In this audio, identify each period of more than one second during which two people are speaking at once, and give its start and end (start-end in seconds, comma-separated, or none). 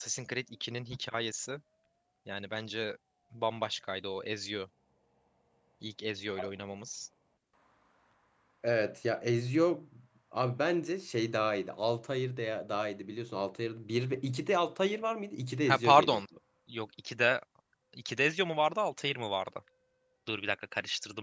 none